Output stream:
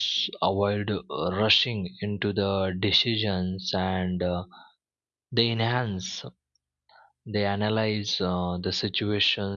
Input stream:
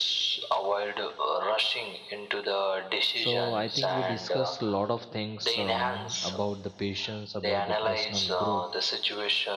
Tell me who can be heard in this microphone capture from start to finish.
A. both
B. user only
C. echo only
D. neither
A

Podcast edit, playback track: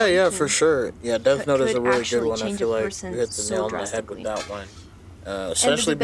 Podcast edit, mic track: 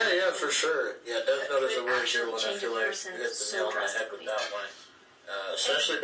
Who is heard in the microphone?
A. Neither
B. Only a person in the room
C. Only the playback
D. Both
C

